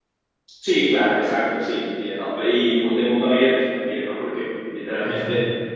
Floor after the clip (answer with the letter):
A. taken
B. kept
B